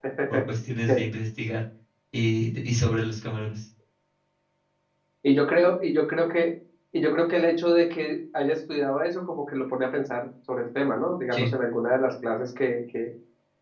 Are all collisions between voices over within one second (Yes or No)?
Yes